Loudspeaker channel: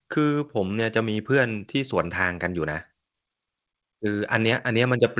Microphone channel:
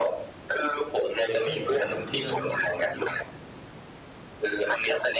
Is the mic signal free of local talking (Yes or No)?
No